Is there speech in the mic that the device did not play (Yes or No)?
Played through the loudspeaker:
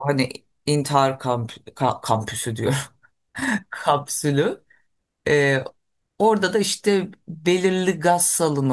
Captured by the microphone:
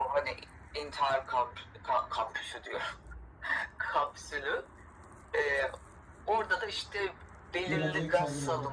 Yes